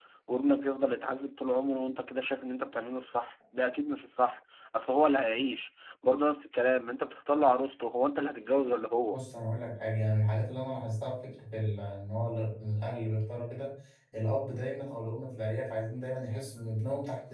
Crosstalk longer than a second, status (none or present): none